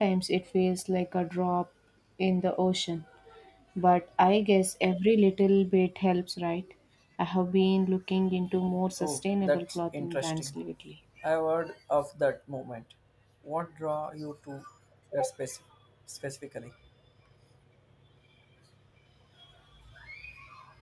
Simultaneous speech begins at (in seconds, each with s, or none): 9.0 s